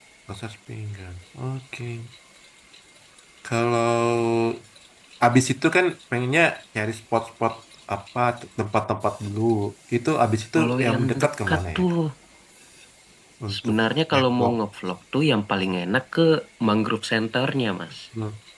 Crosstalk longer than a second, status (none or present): present